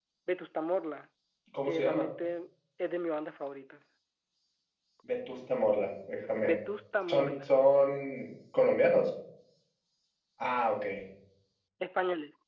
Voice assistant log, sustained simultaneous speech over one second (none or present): none